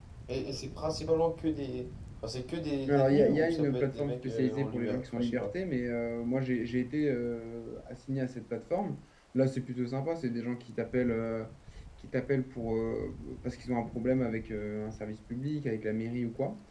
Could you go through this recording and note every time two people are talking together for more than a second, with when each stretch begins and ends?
2.9-5.5

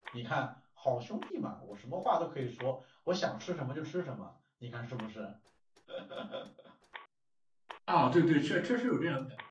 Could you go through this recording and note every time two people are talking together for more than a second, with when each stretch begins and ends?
none

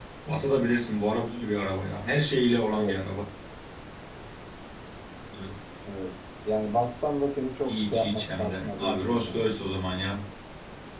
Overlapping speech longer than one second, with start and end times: 7.7-9.6

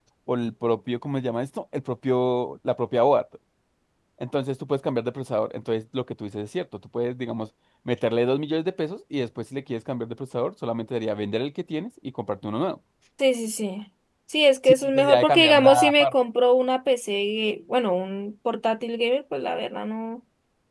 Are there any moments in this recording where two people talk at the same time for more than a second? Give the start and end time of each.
14.7-16.1

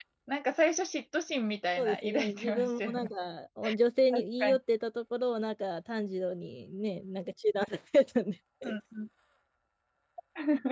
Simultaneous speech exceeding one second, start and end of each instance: 1.8-3.1

